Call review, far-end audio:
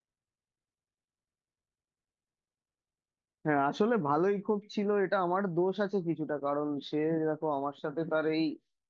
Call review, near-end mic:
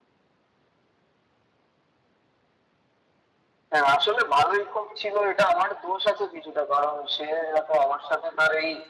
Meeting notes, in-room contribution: none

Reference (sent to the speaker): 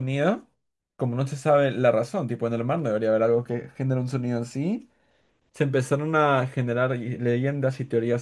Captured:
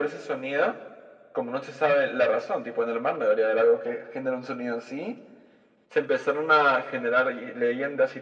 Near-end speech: none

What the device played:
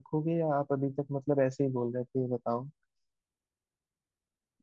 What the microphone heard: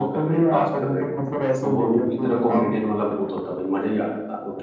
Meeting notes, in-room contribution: present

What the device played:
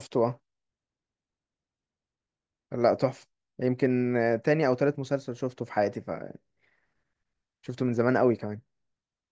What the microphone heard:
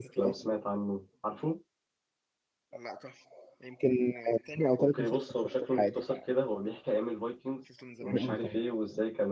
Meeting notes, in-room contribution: present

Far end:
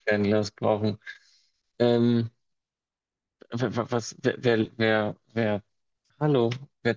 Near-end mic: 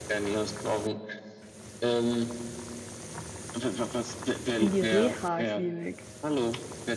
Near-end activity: present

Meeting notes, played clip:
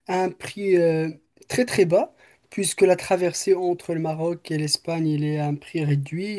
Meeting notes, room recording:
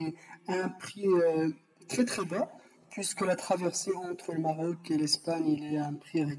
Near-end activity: none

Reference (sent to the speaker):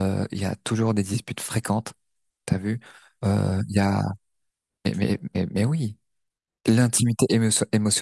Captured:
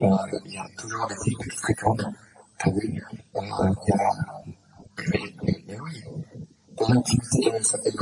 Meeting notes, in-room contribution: none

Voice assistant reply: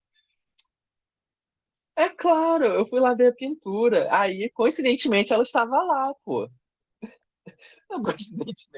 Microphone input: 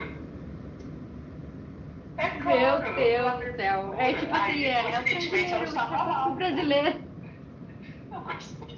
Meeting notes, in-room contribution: present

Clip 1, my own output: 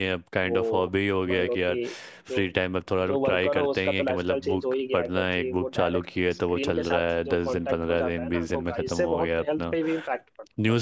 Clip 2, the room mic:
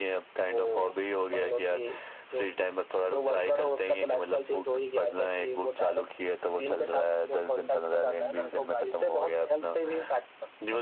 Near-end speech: none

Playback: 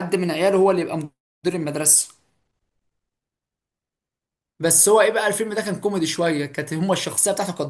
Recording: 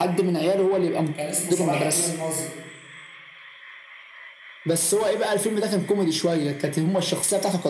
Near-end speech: present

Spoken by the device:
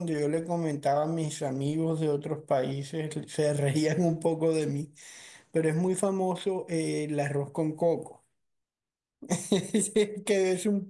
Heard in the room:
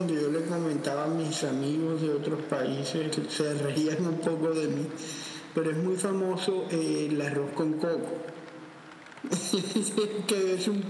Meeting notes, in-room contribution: none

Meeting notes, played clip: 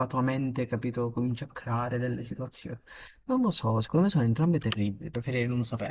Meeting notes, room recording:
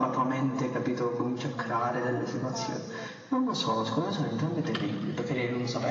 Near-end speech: present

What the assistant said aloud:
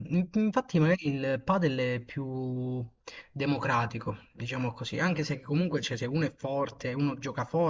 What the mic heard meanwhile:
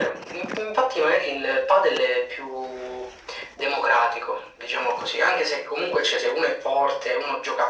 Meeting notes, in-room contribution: none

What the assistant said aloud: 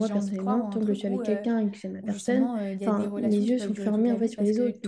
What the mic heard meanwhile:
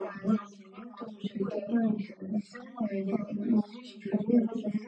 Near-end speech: none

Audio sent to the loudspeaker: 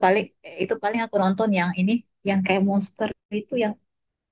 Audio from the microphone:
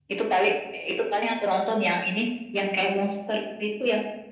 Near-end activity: none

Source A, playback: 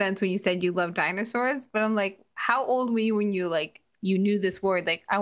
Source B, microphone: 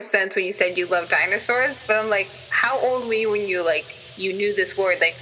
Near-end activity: none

